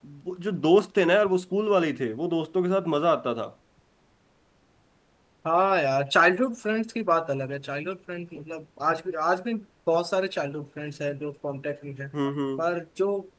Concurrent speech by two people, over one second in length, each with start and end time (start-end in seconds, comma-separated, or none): none